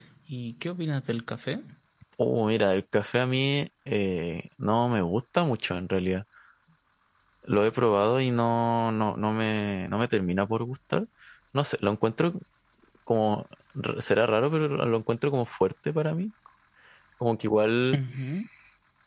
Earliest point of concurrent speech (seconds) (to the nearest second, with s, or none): none